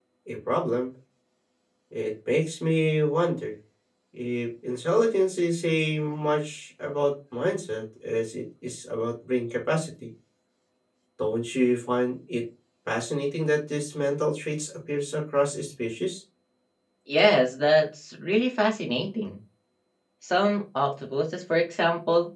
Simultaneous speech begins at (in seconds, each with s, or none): none